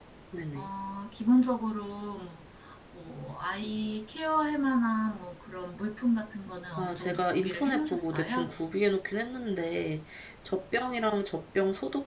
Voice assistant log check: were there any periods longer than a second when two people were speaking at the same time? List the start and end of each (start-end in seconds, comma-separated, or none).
6.8-8.5